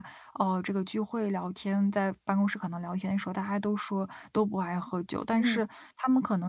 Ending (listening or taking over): listening